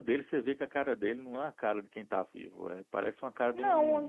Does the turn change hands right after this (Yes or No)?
Yes